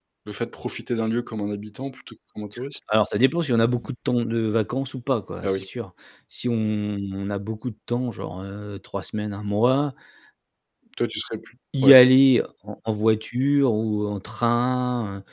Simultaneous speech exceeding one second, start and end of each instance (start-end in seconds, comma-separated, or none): none